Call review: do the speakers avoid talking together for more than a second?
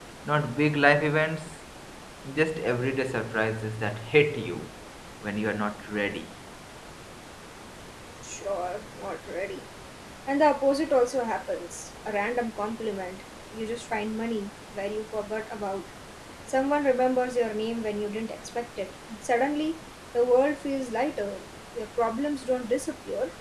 Yes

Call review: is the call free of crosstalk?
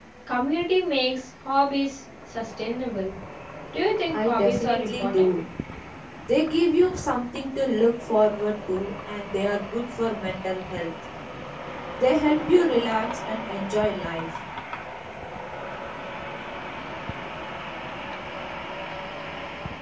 No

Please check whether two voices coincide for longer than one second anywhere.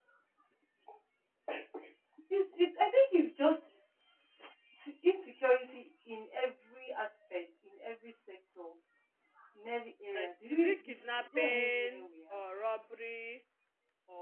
Yes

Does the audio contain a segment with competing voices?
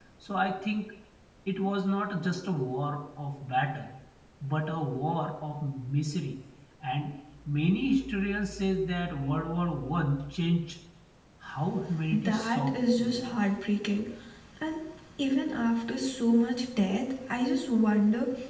Yes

